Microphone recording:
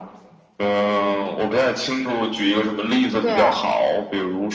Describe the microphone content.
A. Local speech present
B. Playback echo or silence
A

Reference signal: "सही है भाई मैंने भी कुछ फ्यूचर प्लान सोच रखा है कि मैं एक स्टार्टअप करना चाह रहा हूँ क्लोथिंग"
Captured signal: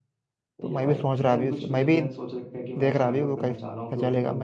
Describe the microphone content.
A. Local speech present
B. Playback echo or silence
A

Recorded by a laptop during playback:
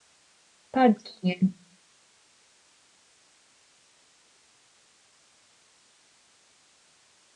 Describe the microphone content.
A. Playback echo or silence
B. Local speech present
B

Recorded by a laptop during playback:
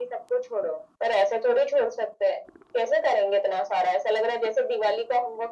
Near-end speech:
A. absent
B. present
A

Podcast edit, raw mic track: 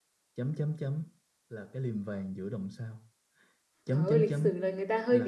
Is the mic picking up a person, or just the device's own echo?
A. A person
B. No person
A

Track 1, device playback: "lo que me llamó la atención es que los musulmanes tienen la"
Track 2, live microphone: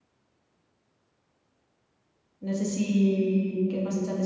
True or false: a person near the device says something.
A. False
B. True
B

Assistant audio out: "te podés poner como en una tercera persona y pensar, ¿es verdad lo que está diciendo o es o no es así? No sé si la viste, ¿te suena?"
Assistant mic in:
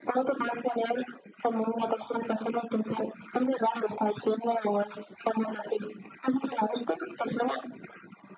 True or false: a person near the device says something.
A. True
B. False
B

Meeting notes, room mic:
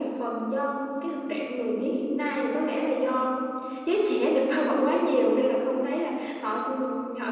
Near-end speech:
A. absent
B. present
A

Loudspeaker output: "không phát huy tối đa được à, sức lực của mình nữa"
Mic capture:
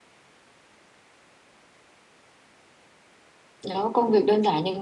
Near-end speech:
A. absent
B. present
B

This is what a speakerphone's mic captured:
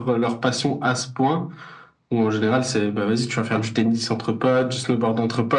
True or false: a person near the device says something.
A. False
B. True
A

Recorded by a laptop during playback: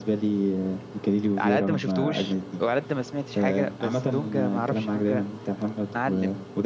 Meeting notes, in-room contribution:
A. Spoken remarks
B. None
A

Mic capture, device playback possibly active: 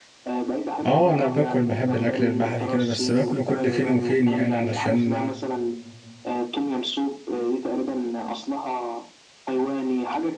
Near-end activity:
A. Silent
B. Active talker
B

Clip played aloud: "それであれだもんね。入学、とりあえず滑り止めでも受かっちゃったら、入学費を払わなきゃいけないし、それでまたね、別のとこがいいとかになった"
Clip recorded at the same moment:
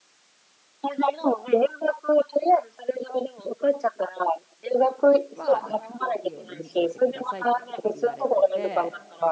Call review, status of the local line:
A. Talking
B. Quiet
A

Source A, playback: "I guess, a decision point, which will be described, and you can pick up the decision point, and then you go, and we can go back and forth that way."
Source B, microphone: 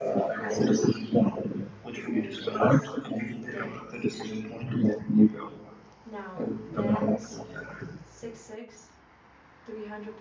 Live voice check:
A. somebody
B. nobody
A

